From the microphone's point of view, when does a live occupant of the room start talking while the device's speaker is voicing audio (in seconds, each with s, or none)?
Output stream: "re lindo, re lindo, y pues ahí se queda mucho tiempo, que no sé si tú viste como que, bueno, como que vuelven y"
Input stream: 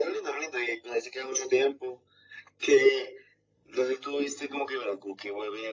none